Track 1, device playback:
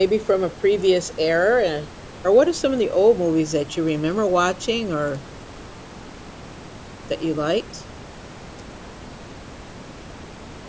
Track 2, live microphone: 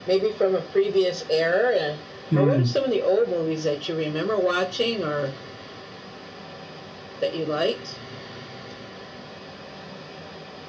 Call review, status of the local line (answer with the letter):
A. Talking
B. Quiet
A